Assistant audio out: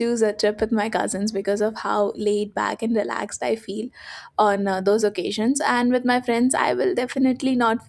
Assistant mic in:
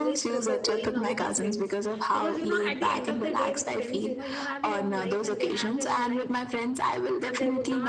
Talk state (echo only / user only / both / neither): both